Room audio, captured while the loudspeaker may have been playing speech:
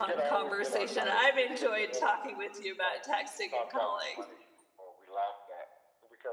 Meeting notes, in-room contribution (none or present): present